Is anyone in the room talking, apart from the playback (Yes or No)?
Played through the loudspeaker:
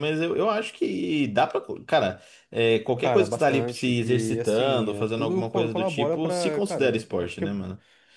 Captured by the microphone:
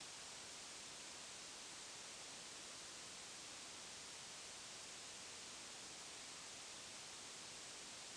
No